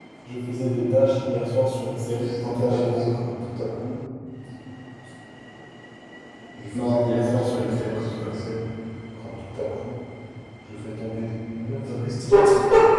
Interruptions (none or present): present